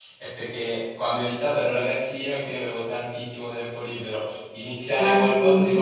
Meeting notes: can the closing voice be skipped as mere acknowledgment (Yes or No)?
Yes